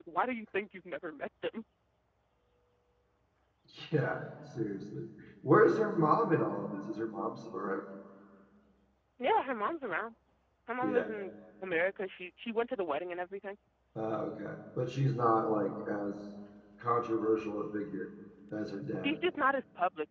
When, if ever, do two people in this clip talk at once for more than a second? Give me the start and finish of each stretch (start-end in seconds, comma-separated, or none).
none